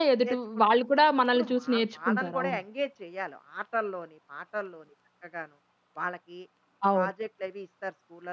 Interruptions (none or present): present